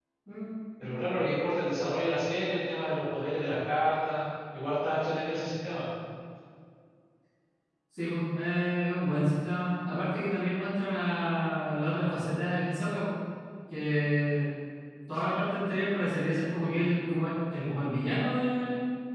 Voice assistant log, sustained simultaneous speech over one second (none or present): none